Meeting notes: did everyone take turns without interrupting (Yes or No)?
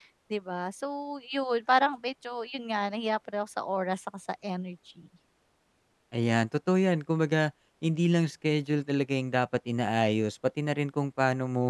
Yes